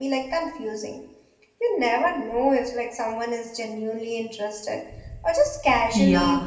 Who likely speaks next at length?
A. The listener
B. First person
A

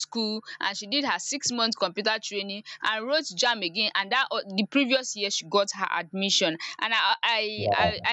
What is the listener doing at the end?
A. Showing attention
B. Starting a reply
A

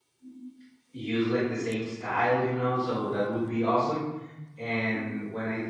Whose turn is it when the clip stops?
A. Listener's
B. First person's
B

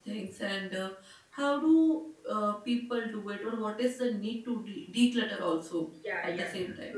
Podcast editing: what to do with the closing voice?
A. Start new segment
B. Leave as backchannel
A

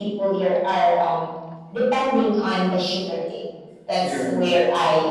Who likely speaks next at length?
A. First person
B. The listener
A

